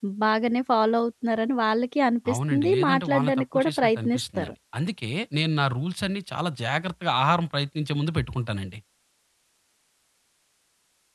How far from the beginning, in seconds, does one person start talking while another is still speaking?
2.2 s

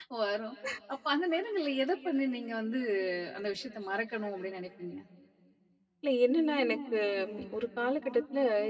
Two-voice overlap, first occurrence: none

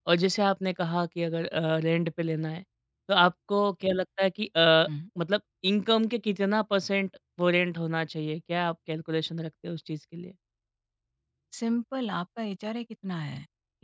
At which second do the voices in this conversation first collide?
none

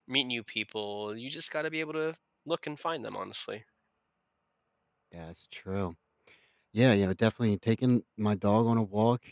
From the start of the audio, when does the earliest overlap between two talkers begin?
none

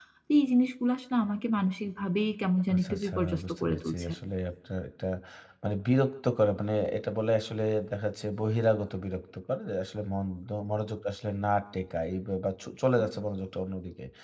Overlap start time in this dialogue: 2.7 s

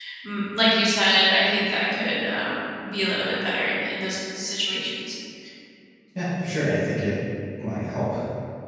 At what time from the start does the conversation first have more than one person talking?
none

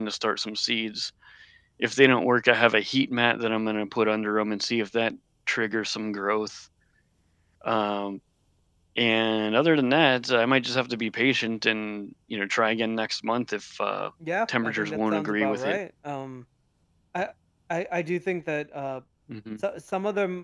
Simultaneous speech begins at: 14.5 s

